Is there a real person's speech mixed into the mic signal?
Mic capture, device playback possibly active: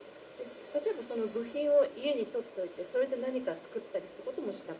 No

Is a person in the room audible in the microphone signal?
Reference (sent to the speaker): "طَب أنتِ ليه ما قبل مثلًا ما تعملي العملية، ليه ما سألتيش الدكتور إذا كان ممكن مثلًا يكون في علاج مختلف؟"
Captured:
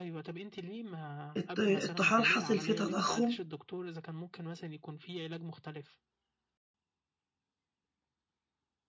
Yes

